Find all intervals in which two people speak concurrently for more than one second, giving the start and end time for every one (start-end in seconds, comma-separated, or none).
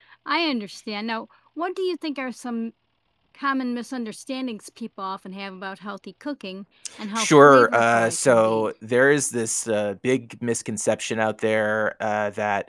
7.2-8.7